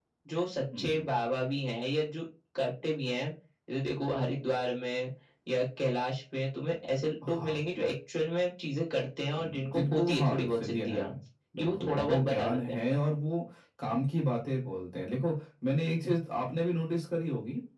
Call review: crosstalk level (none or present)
present